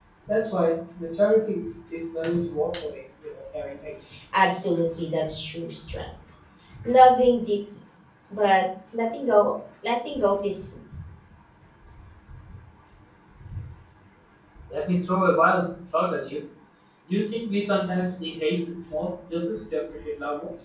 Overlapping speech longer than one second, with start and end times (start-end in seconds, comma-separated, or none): none